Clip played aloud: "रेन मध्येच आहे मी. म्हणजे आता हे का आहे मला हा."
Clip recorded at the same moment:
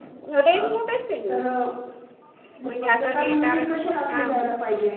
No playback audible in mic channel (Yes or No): No